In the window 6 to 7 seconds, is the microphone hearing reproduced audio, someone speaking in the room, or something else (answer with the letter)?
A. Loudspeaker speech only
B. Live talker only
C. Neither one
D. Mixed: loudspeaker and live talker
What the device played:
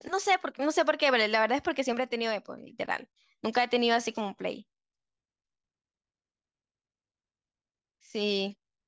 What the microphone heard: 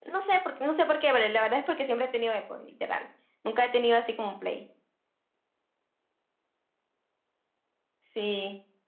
C